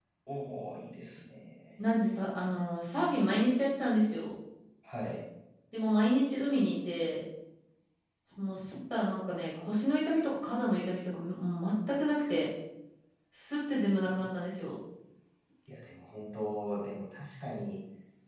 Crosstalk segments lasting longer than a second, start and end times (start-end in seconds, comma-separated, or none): none